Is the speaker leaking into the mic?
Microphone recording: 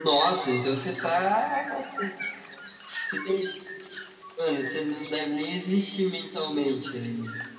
Yes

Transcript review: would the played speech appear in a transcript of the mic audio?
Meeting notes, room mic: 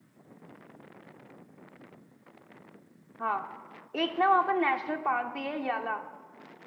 No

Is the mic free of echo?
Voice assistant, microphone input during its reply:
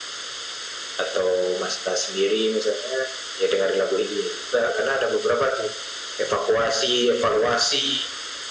No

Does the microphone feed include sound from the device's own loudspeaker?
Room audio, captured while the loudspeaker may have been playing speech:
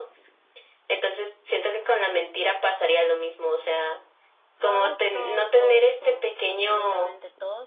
Yes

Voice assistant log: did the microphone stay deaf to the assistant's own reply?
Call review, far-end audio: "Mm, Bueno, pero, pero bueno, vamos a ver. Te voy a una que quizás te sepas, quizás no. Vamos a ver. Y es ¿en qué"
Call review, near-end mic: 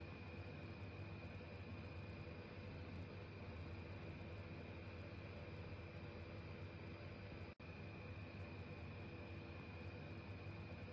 Yes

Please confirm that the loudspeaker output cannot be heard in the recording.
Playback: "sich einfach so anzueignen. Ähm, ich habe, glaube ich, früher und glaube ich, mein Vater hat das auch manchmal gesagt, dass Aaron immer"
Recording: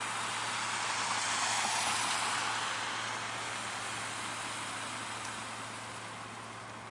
Yes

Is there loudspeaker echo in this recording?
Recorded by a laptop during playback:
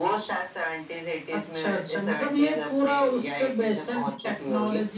Yes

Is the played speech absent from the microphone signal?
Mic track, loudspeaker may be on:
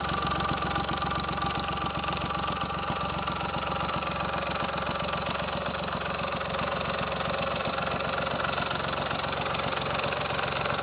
Yes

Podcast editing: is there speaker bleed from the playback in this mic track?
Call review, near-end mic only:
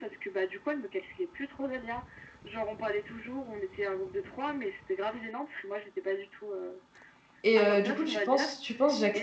Yes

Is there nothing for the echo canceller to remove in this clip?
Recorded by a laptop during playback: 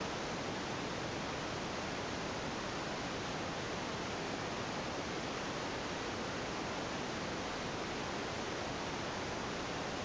Yes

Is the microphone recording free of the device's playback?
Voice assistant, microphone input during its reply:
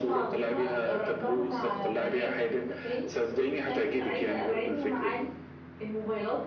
No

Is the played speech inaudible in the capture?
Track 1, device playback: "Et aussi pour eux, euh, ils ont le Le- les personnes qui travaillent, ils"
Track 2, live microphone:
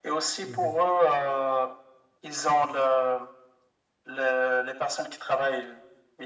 No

